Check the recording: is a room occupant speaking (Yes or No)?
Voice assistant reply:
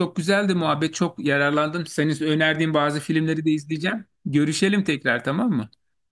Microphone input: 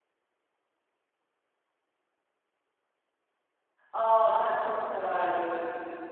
Yes